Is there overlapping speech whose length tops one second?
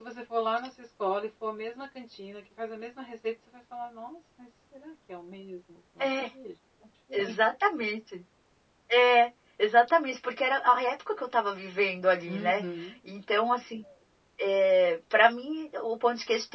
No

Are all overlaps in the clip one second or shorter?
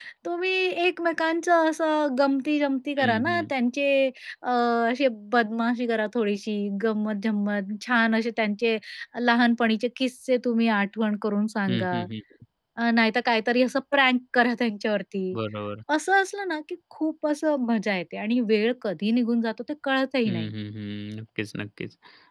Yes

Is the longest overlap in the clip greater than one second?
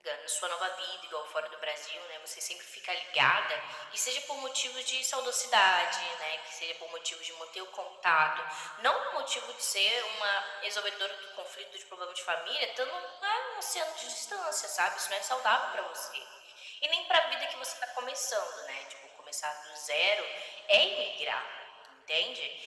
No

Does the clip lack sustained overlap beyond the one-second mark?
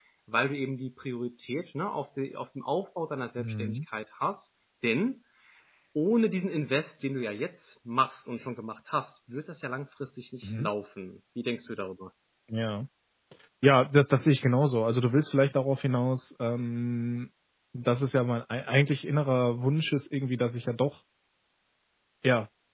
Yes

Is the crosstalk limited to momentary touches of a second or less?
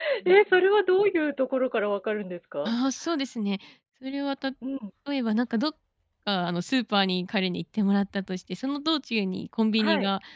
Yes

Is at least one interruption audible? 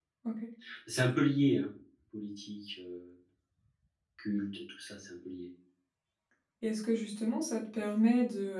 No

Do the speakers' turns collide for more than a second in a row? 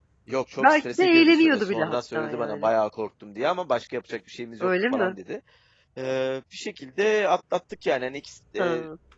Yes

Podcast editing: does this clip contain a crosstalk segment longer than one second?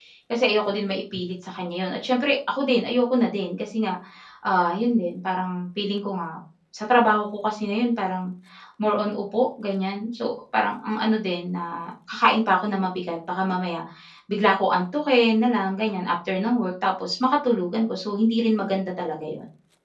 No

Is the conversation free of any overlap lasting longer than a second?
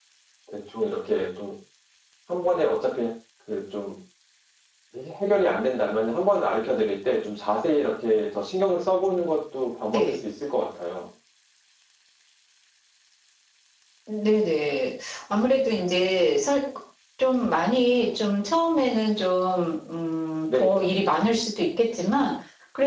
Yes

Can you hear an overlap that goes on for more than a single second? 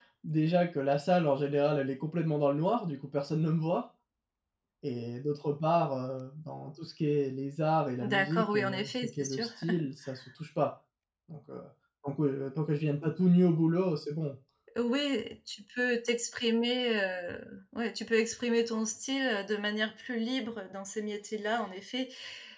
Yes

